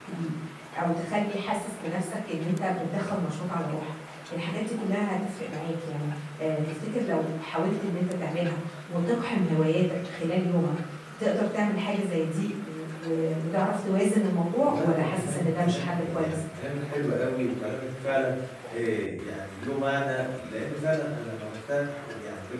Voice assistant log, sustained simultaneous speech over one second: present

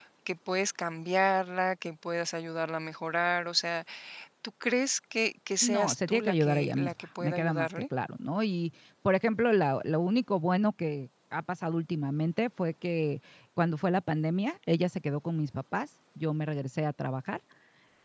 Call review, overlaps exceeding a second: present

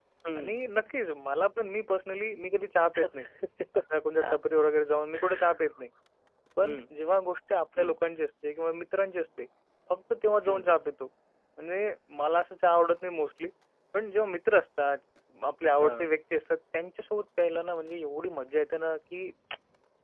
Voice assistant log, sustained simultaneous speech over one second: none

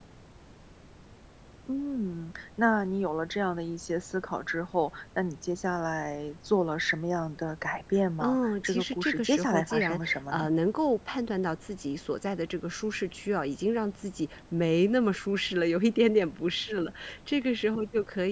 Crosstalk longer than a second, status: present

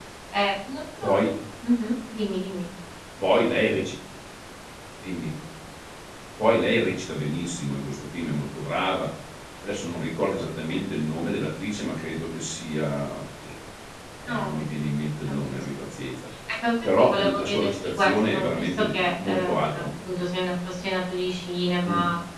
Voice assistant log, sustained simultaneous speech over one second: present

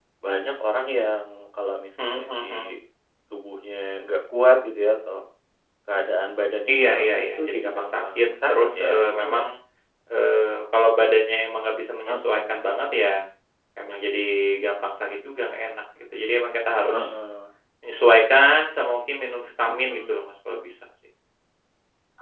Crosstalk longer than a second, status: present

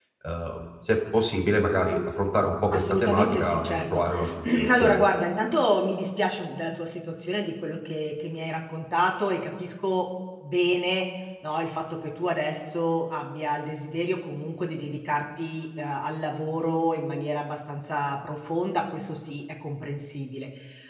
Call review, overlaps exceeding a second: present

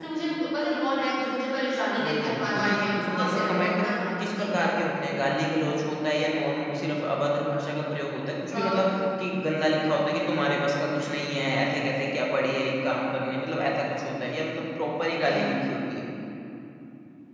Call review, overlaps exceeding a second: present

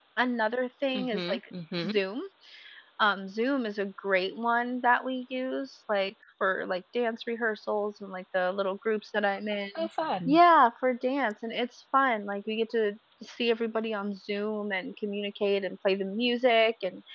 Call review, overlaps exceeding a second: none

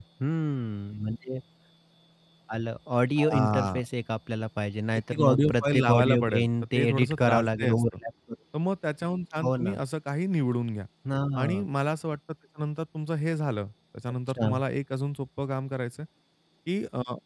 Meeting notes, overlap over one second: present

